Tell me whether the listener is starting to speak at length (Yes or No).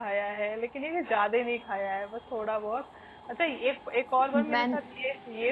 No